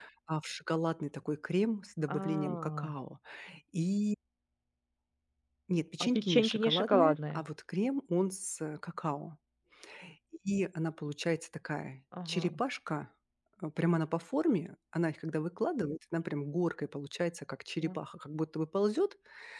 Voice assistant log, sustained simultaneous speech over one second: present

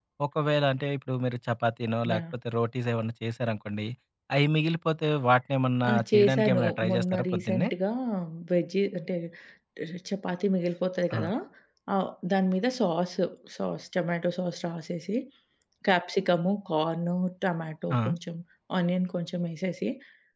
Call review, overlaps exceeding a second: present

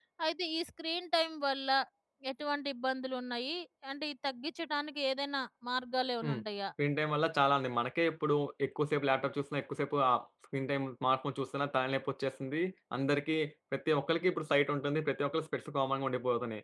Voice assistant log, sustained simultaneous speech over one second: none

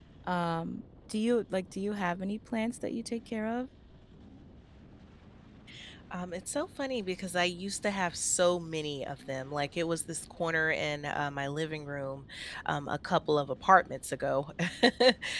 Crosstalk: none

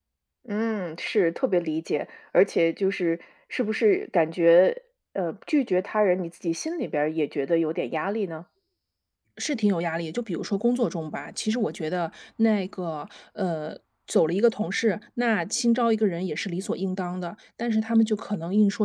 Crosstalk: none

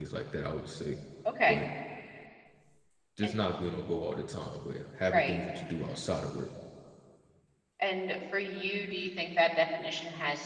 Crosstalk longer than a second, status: none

